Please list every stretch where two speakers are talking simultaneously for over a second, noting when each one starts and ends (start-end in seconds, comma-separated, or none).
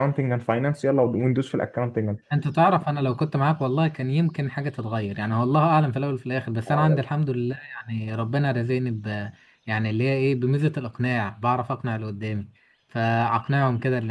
none